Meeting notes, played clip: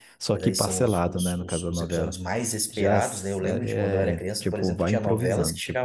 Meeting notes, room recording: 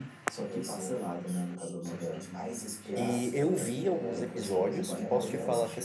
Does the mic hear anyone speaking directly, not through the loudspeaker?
Yes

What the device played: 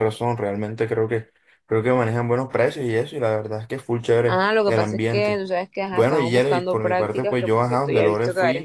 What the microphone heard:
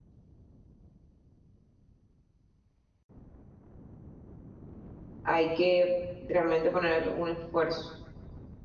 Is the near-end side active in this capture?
Yes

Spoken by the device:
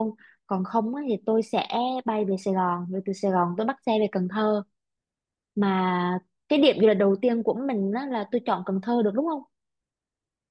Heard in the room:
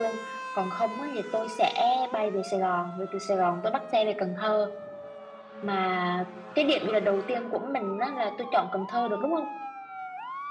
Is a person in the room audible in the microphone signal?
No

